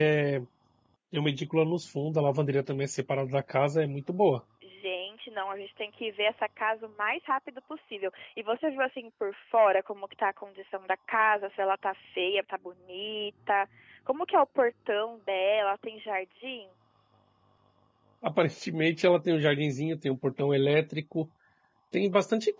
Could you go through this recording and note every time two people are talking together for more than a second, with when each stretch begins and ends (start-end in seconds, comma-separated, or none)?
none